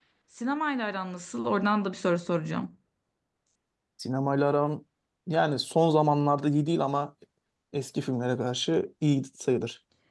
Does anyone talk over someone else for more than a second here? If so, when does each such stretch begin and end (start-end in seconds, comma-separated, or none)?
none